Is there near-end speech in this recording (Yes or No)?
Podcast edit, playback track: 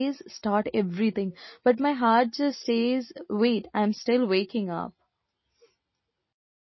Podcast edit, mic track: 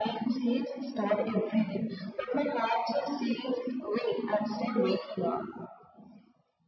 No